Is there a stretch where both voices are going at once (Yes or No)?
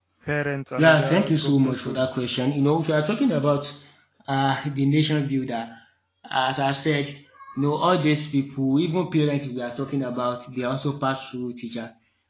Yes